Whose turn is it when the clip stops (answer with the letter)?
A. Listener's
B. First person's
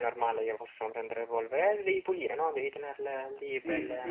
A